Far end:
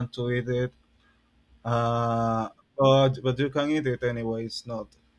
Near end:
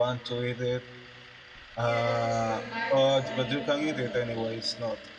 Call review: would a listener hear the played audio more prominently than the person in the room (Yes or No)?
Yes